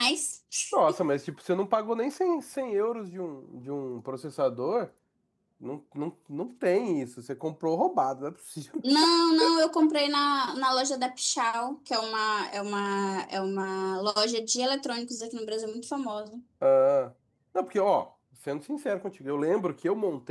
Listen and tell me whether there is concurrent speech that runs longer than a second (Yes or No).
No